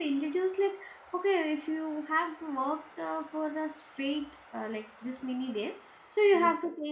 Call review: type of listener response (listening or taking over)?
listening